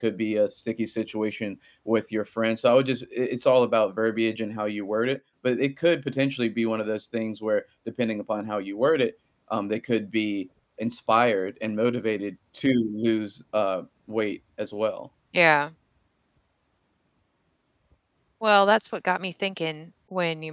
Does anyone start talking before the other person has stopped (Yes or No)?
No